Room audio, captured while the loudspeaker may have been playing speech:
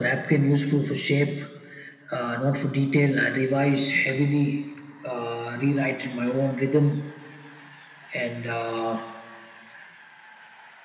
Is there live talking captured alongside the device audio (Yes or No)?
No